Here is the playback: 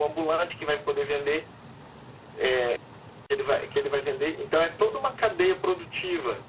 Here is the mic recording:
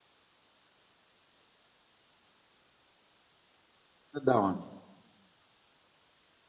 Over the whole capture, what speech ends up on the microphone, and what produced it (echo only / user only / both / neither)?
user only